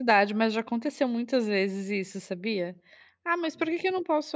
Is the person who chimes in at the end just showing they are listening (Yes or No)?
Yes